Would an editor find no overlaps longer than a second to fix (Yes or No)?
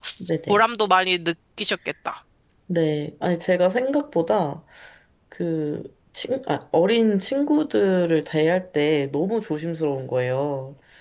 Yes